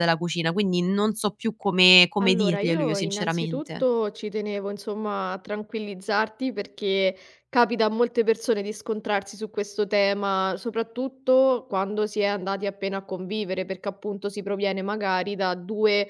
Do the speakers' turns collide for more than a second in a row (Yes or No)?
Yes